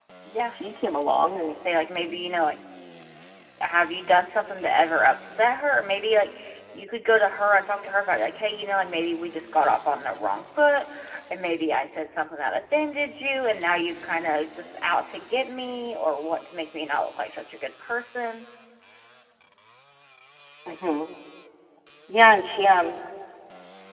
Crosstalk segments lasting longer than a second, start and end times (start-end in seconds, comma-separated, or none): none